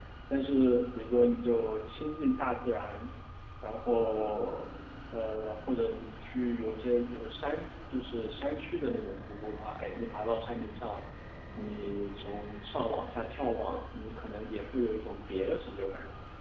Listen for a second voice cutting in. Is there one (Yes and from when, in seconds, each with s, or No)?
No